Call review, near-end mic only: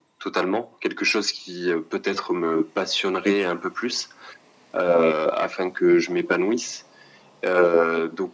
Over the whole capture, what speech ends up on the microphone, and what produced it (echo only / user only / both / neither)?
echo only